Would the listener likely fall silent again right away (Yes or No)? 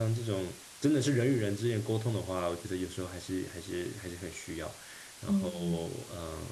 Yes